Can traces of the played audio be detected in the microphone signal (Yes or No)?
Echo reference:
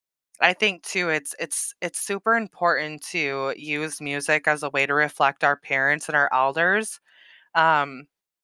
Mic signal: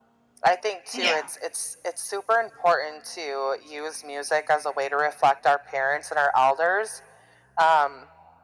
Yes